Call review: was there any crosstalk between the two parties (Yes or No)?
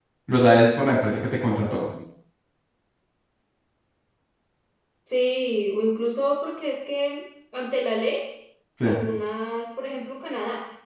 No